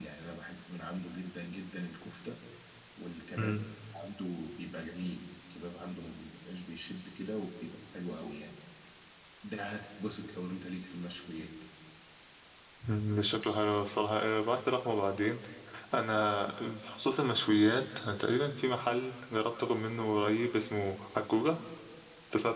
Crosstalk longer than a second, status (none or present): none